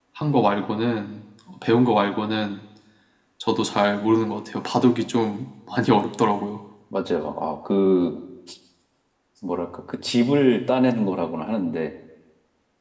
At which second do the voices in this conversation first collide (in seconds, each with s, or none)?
none